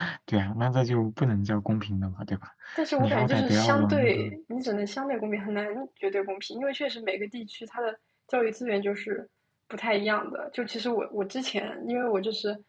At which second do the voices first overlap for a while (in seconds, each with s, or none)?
3.0 s